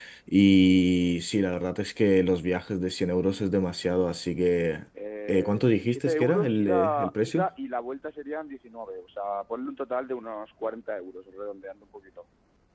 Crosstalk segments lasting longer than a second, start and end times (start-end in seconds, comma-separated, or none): 5.3-7.5